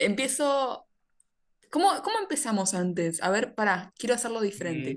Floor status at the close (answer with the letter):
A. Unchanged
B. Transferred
B